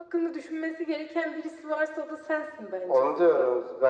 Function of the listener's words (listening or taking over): taking over